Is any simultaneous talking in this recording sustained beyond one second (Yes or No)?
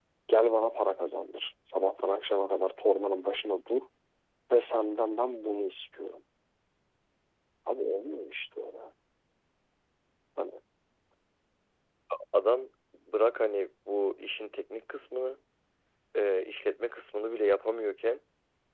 No